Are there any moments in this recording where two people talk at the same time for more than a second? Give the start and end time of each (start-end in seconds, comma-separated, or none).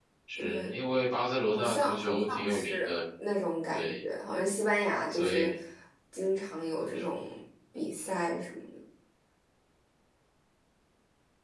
1.5-3.0